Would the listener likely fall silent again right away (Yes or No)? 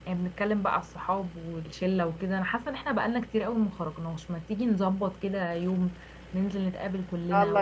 Yes